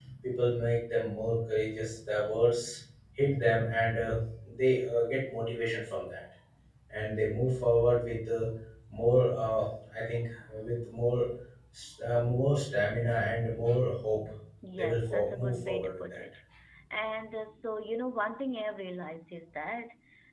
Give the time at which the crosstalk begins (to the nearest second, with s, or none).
15 s